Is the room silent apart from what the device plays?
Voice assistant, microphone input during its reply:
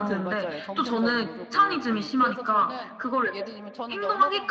No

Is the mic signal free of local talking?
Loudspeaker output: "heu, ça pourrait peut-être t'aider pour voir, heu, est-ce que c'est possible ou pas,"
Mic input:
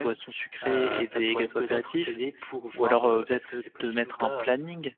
No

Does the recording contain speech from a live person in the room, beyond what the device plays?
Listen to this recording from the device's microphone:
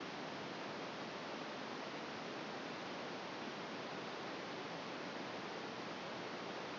No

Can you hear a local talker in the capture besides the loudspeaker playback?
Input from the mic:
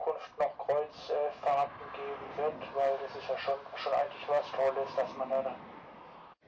No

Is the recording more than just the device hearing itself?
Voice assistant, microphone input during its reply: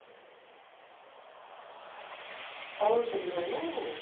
Yes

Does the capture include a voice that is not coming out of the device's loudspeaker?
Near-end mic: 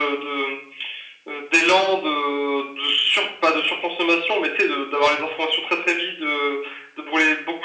No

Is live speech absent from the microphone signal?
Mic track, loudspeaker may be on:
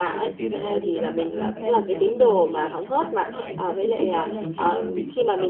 No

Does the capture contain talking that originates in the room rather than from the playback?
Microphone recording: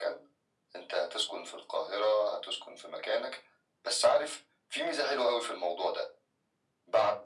No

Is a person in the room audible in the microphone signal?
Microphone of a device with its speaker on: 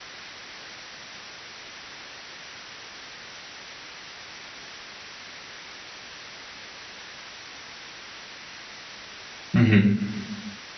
Yes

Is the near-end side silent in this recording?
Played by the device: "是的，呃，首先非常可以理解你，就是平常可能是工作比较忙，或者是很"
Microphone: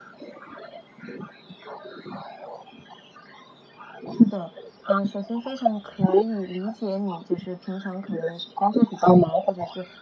Yes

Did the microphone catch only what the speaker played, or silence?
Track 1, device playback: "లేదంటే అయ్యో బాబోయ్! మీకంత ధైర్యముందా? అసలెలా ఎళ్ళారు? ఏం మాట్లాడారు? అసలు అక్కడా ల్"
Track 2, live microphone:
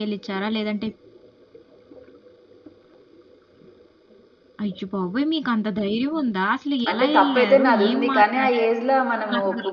No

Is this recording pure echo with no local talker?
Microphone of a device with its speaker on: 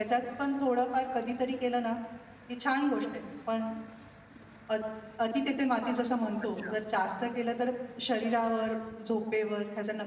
No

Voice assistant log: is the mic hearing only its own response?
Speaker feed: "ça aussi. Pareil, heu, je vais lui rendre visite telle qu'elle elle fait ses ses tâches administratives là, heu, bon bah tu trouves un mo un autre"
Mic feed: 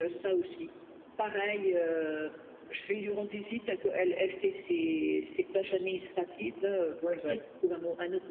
No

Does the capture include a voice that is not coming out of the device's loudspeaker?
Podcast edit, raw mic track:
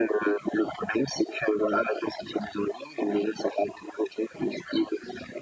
No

